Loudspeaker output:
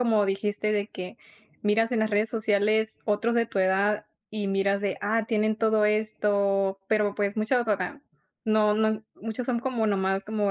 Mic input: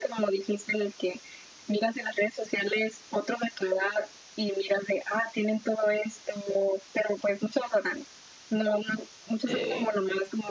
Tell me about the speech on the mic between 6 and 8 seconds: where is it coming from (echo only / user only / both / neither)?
echo only